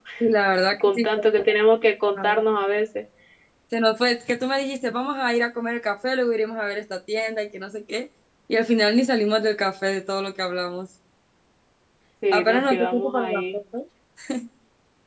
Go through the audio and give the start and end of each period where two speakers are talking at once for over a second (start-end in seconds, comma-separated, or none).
12.3-13.6